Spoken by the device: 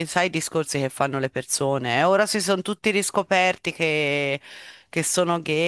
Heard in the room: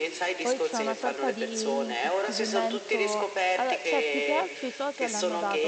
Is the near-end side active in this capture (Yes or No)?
Yes